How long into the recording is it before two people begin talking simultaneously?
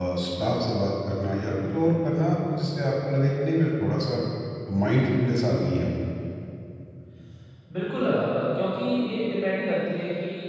none

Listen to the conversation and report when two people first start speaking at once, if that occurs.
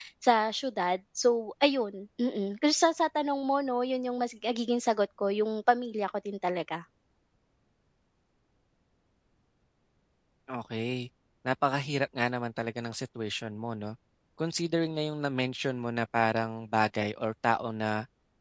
none

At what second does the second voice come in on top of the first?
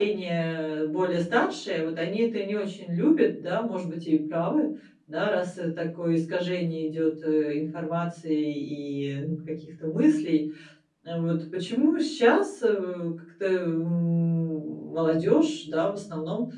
none

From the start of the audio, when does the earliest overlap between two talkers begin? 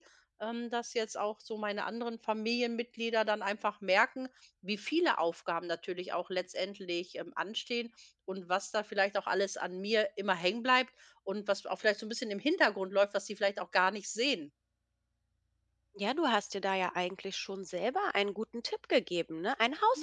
none

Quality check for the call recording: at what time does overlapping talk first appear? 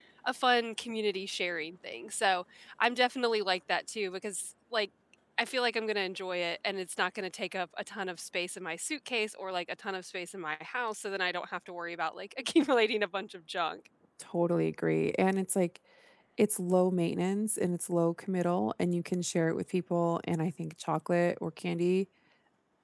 none

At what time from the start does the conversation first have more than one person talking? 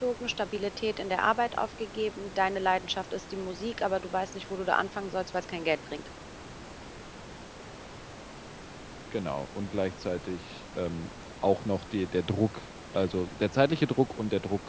none

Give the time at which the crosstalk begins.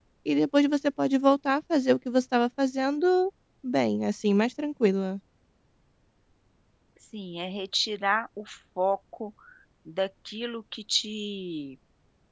none

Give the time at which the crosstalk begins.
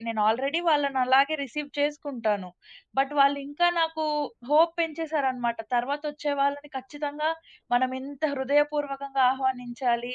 none

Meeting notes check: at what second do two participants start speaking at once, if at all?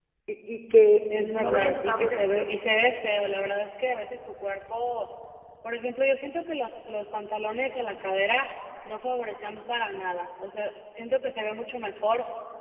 1.2 s

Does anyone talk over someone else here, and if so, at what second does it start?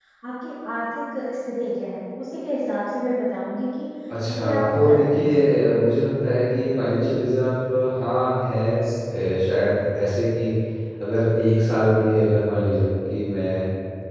4.4 s

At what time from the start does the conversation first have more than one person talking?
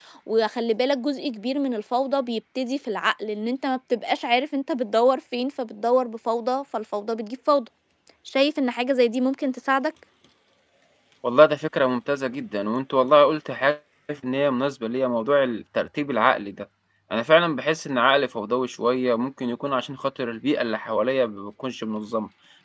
none

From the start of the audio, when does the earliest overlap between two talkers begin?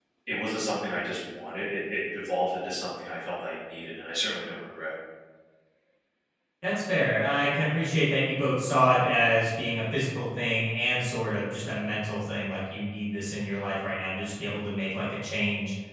none

